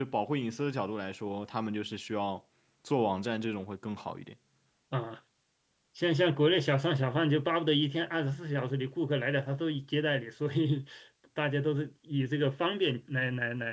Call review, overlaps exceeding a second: none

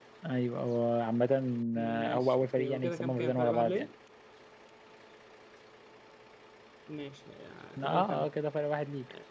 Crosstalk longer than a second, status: present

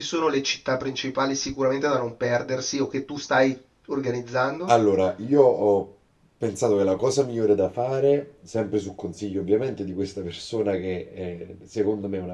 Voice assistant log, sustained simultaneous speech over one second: none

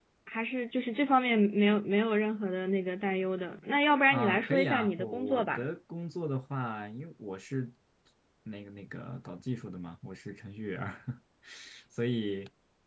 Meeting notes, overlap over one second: present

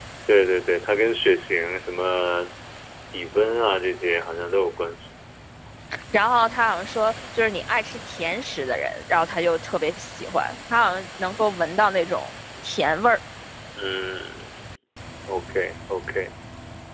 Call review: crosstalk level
none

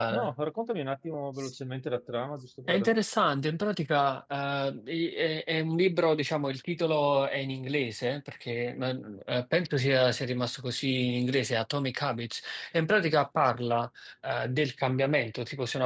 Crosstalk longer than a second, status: none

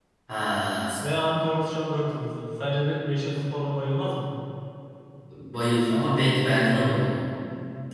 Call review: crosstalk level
none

